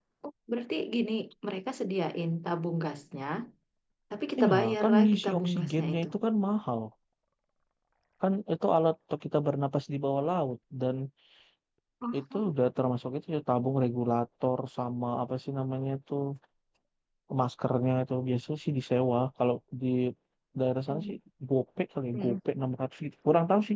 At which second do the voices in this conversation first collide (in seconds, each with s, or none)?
4.4 s